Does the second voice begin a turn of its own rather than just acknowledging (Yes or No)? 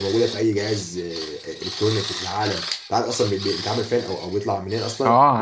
Yes